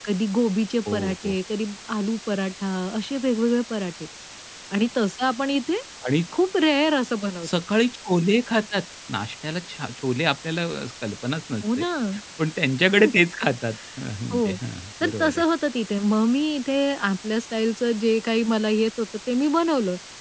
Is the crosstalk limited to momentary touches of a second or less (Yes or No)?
Yes